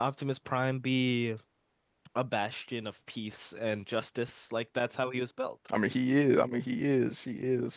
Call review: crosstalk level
none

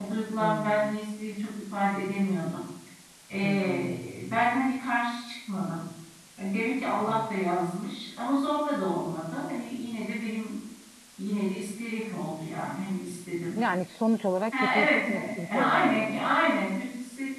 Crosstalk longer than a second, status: present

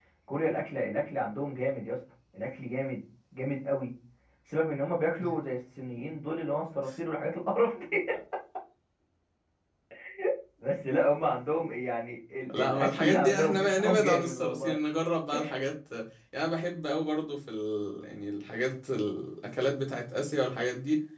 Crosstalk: present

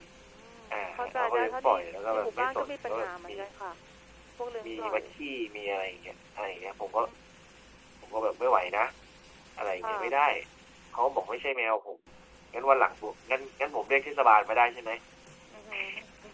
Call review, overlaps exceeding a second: present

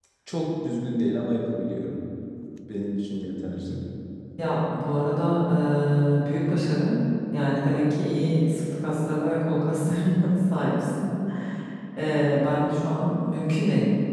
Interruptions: none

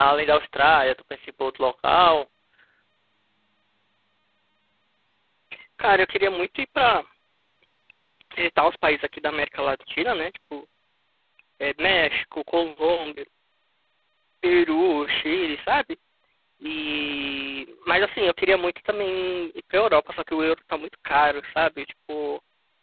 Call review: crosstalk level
none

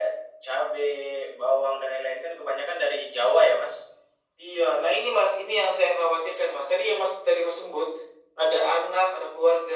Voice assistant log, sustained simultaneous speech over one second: none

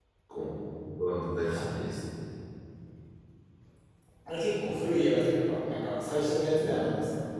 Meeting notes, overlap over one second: none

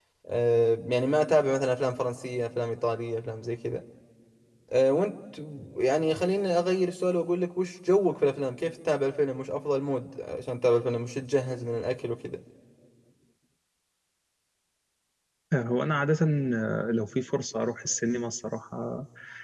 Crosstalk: none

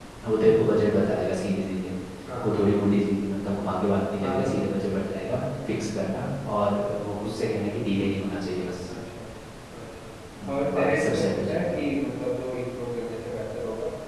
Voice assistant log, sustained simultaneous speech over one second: present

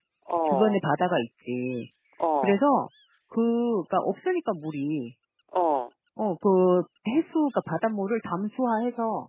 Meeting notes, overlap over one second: none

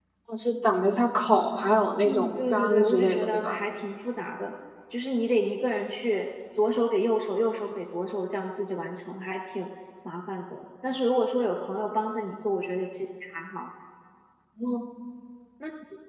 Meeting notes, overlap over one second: present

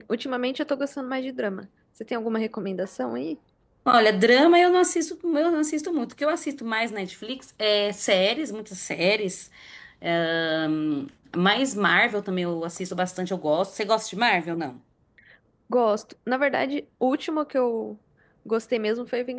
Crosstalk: none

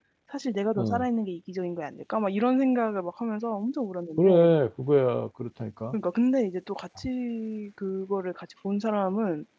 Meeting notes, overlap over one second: none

